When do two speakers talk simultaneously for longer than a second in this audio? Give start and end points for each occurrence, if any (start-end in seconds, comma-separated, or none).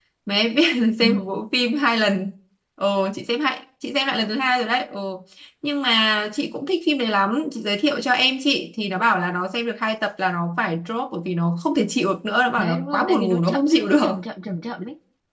12.6-14.2